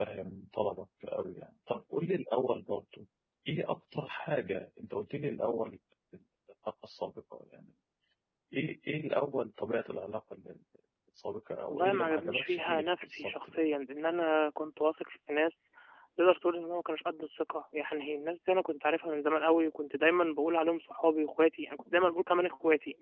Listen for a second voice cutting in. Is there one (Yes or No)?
Yes